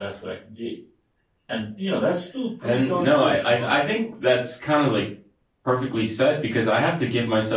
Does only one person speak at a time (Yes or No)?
No